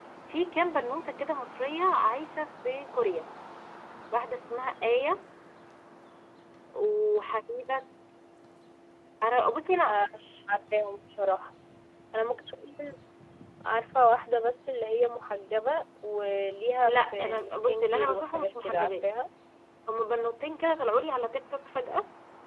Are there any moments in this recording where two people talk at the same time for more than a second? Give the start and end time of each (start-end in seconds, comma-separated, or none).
16.9-19.0